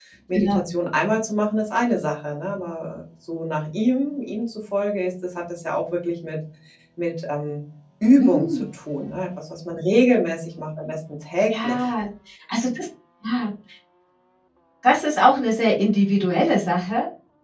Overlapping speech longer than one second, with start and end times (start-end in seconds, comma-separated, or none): none